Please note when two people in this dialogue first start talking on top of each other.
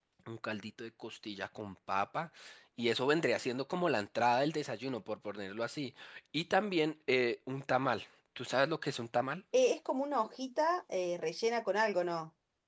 none

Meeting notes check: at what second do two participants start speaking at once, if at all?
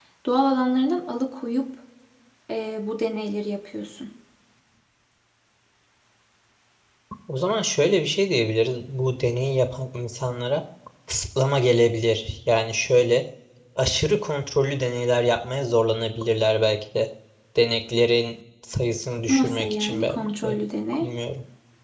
19.3 s

